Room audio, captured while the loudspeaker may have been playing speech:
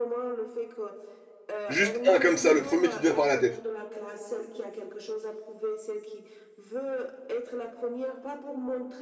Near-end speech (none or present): present